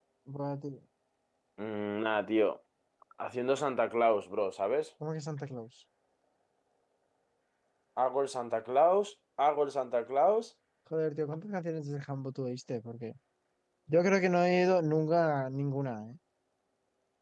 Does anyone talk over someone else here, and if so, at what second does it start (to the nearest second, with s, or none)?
none